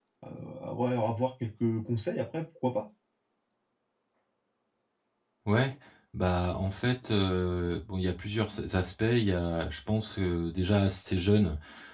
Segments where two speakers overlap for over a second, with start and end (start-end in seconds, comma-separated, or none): none